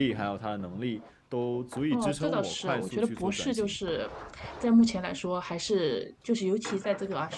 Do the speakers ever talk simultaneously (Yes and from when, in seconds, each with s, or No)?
Yes, from 1.9 s